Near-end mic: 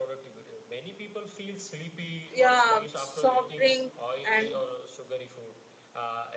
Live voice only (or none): yeah soft drink and